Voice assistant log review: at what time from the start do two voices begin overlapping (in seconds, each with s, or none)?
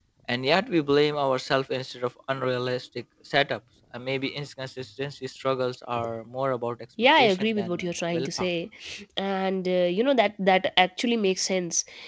7.0 s